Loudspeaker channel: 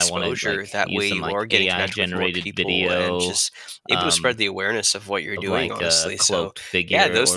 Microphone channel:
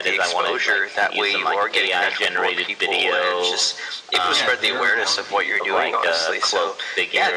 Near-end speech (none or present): present